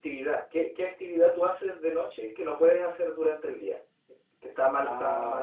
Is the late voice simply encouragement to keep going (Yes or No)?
Yes